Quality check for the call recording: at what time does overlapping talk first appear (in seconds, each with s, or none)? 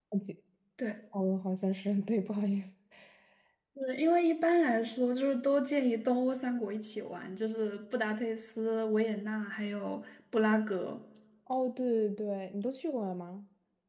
none